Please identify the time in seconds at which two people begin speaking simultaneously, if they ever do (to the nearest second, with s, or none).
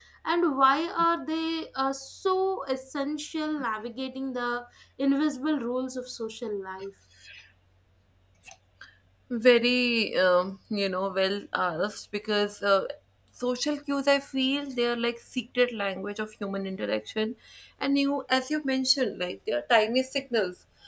none